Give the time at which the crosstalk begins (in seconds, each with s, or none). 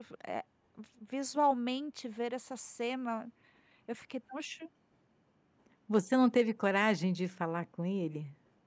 none